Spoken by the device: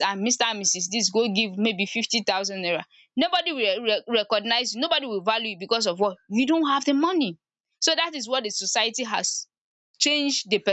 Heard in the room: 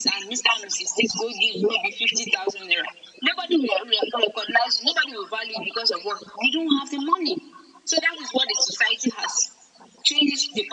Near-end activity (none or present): none